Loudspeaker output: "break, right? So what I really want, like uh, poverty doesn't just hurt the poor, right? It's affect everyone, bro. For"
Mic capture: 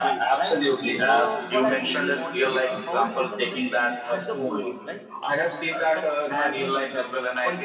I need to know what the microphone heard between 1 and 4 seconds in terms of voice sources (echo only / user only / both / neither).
both